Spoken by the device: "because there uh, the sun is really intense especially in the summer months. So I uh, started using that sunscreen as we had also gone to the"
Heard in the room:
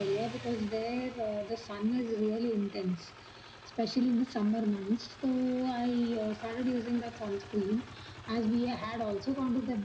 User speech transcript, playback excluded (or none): none